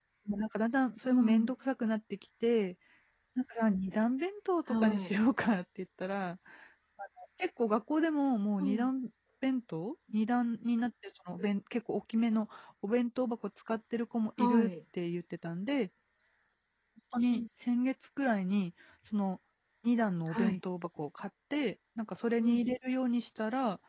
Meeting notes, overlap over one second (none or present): none